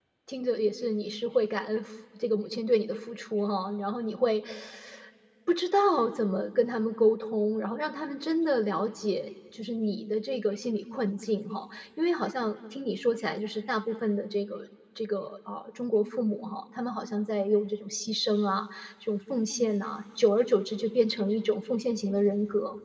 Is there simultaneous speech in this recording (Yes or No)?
No